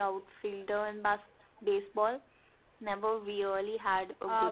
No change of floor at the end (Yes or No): No